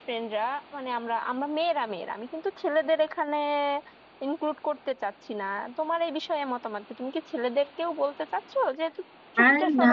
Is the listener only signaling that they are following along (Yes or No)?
No